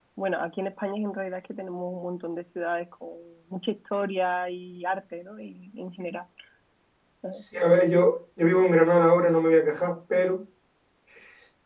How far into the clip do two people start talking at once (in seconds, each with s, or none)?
none